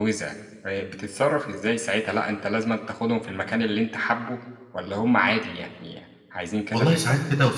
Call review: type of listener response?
taking over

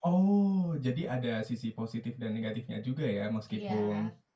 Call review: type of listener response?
listening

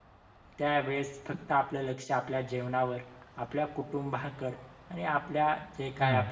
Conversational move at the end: listening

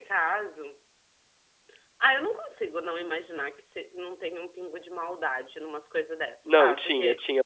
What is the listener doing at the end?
taking over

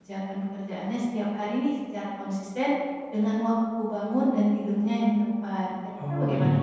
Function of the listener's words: taking over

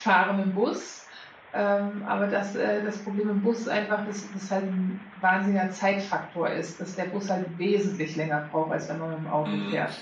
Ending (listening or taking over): taking over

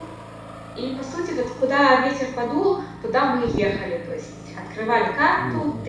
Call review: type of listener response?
listening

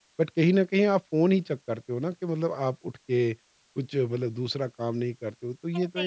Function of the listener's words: taking over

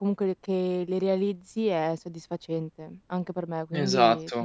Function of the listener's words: taking over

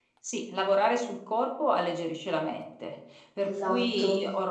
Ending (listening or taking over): listening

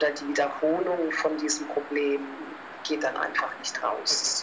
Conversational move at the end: taking over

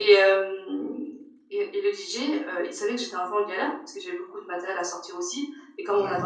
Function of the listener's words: listening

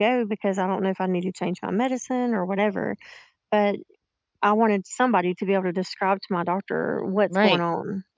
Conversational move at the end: taking over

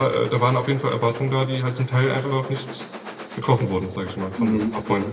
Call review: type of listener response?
taking over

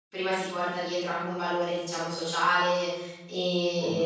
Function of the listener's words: listening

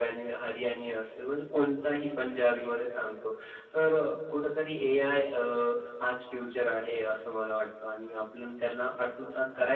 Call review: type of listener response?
listening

